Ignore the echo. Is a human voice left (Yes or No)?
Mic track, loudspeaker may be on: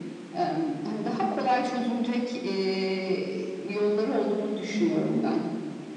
No